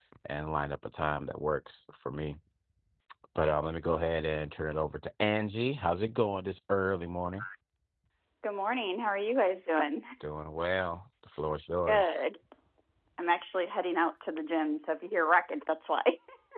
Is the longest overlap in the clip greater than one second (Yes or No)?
No